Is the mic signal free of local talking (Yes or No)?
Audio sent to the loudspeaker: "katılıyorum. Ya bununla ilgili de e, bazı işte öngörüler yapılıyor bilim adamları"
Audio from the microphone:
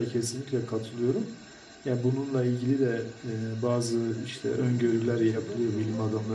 No